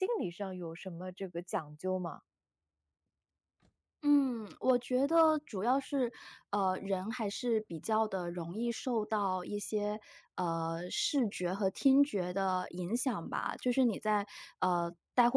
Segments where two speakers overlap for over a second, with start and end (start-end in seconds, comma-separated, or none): none